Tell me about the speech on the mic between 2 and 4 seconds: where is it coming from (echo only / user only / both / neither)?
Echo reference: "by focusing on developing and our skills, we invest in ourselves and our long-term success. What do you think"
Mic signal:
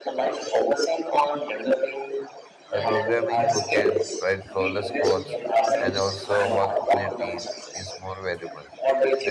both